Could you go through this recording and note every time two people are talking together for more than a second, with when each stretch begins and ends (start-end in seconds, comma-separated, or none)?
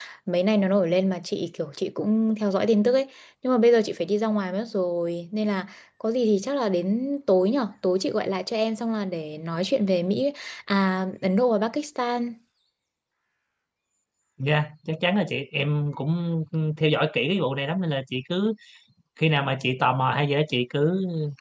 none